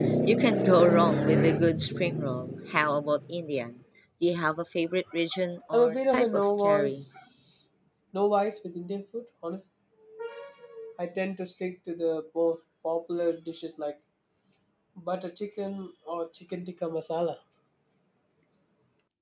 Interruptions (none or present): present